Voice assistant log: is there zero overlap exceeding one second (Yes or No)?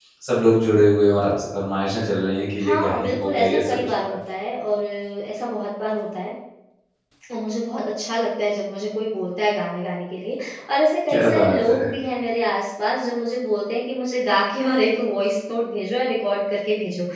No